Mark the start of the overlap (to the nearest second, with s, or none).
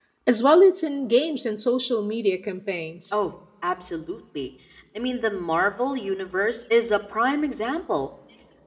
none